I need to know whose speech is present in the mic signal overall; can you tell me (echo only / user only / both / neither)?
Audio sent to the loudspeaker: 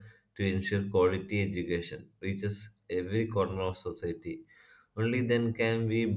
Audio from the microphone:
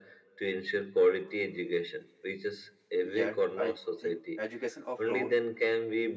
both